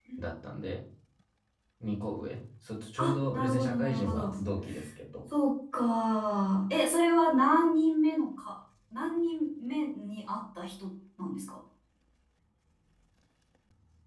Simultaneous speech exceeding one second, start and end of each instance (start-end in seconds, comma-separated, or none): 3.0-4.3